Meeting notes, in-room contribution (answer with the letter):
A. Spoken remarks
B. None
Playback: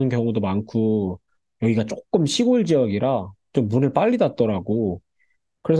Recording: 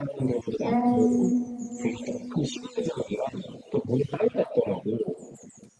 A